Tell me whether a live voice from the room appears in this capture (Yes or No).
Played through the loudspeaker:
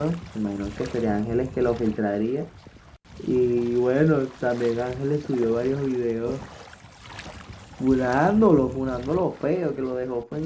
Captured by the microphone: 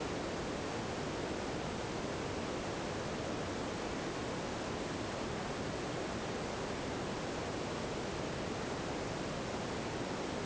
No